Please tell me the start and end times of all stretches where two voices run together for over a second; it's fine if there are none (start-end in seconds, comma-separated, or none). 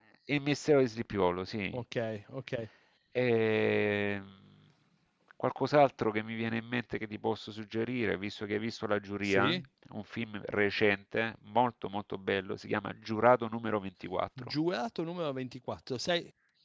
none